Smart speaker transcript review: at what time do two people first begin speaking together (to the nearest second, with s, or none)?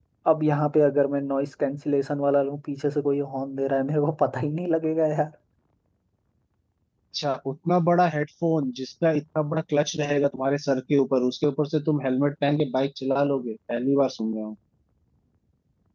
none